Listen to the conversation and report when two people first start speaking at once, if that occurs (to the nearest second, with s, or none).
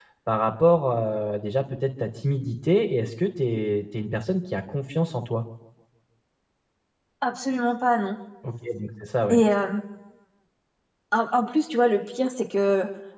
none